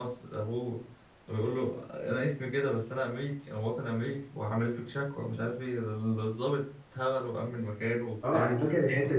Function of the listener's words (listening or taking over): taking over